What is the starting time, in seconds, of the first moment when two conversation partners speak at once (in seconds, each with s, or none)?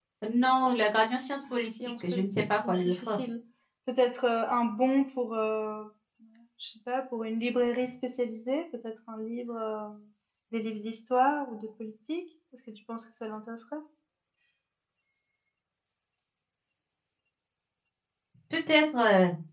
1.8 s